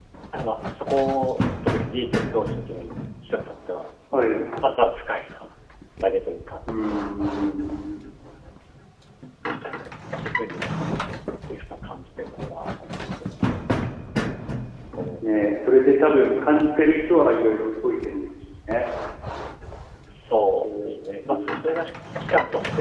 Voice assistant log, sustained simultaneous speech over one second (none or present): none